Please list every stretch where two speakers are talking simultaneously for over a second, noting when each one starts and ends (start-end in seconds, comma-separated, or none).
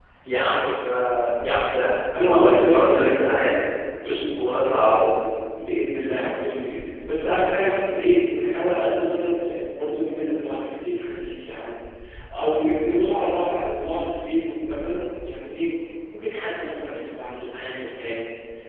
2.3-3.5